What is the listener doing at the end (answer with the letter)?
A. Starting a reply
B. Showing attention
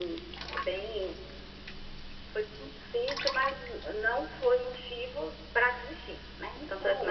A